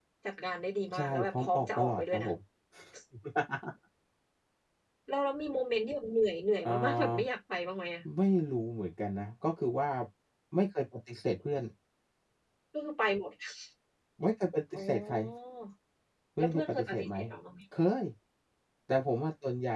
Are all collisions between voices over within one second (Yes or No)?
No